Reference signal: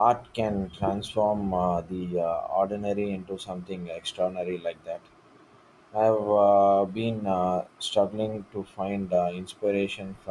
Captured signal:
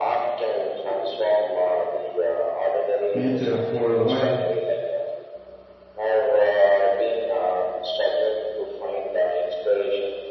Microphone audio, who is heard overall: both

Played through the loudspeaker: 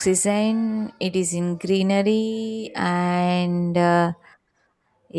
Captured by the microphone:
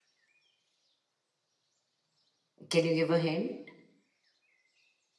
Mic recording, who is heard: user only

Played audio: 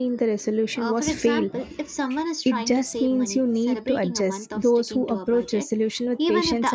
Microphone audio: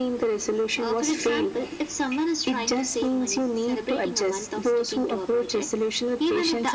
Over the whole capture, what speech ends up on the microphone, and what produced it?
echo only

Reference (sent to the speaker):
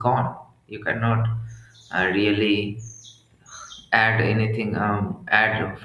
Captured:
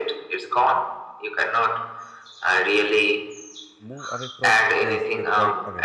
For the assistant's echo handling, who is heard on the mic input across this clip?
both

